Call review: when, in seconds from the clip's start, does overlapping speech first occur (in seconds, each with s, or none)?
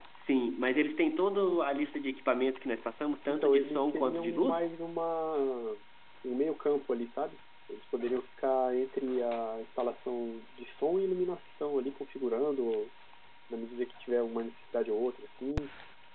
3.3 s